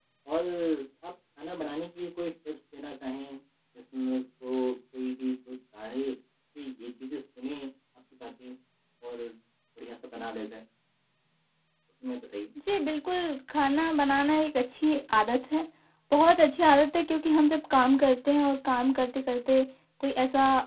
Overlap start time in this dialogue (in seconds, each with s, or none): none